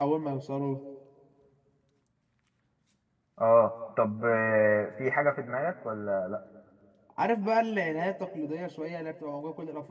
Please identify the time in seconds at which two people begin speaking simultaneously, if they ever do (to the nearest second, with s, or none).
none